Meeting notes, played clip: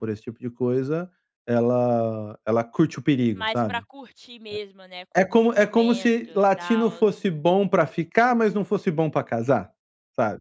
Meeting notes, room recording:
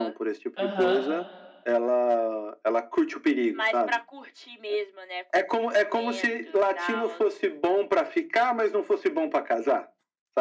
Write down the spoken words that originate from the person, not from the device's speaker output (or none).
Aham.